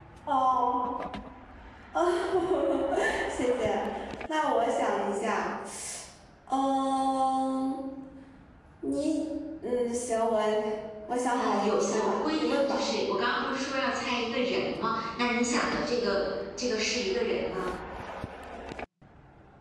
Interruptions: present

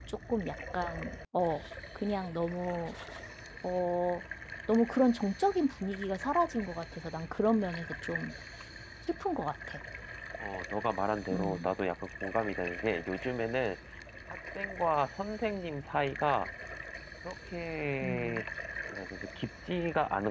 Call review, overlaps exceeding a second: none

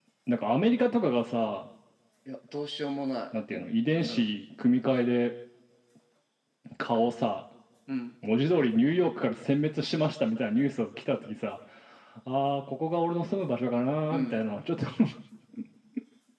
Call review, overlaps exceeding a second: none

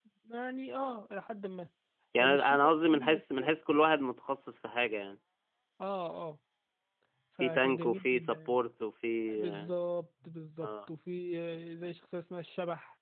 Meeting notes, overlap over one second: present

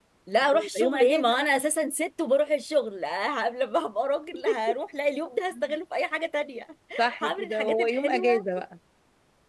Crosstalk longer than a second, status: present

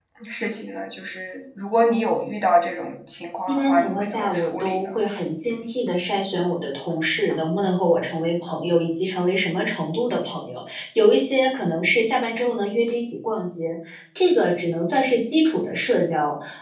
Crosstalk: present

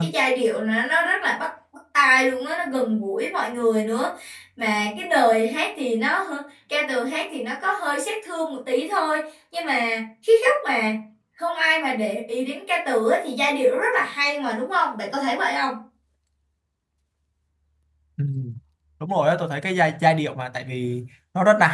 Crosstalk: none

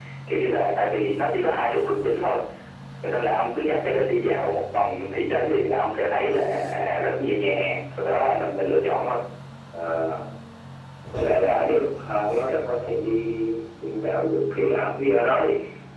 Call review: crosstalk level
none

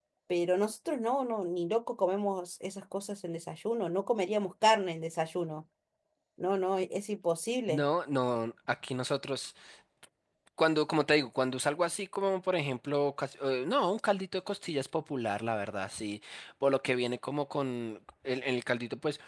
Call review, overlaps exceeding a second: none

